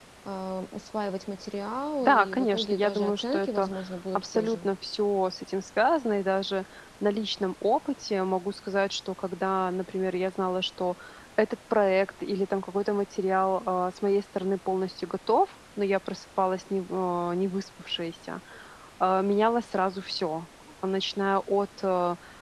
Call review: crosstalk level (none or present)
present